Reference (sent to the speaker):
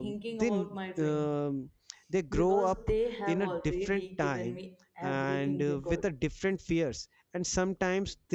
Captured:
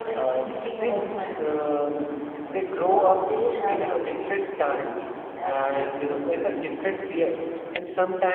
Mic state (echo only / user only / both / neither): echo only